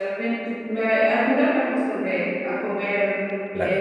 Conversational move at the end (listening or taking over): listening